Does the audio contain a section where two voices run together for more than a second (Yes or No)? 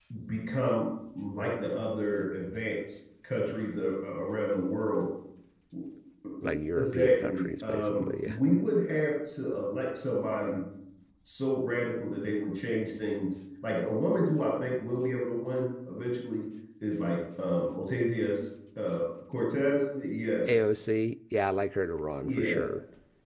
Yes